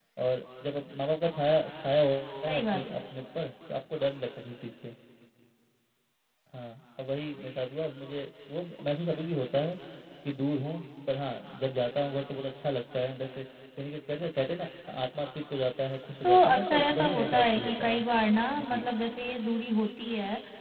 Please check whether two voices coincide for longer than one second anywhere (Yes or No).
Yes